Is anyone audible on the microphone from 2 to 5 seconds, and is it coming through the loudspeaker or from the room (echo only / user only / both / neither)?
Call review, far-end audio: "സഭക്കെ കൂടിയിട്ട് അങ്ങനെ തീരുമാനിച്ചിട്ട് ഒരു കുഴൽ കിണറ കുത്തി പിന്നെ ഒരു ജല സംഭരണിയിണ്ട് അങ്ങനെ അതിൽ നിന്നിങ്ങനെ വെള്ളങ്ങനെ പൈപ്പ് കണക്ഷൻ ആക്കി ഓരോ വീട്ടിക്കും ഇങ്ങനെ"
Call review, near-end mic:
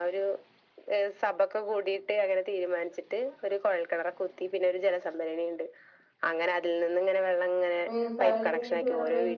echo only